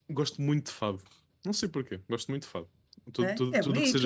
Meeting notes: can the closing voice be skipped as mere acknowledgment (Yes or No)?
No